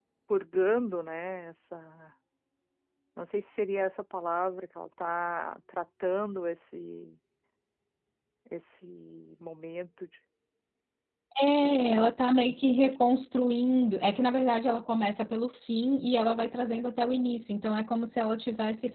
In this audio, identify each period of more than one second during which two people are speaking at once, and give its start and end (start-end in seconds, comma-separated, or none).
none